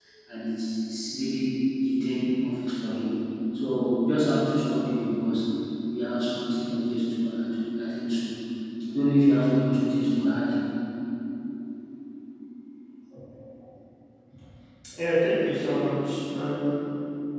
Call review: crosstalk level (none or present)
none